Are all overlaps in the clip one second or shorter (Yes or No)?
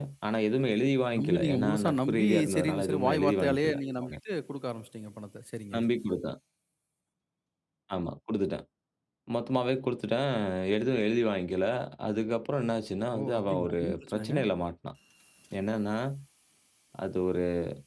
No